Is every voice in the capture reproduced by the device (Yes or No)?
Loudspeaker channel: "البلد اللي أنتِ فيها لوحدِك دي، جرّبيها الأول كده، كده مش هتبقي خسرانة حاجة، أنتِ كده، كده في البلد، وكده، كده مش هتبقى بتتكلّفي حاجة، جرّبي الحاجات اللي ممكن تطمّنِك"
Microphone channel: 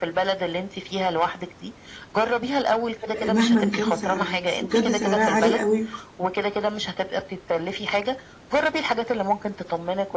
No